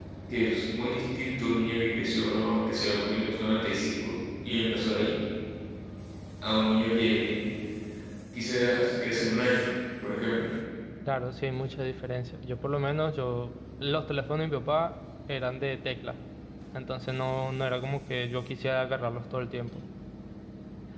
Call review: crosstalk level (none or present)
none